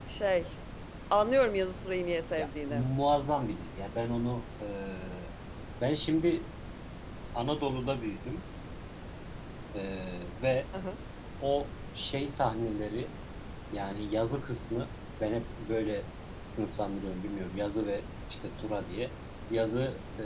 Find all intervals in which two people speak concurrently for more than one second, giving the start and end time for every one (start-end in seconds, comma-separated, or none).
none